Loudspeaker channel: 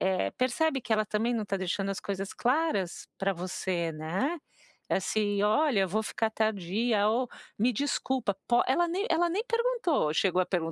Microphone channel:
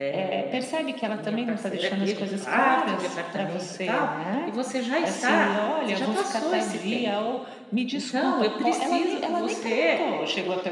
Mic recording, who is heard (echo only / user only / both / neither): both